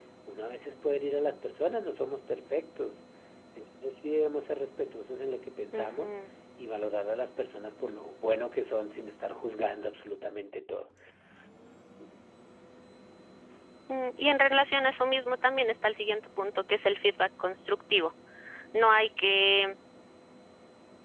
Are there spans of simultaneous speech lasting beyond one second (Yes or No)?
No